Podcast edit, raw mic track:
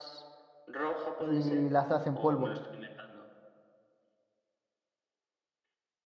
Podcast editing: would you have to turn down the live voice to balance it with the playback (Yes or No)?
Yes